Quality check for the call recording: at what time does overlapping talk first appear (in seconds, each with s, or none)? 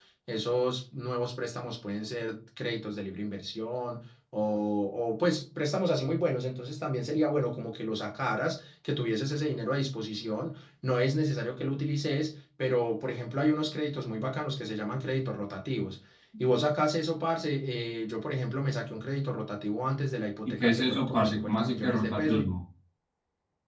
20.4 s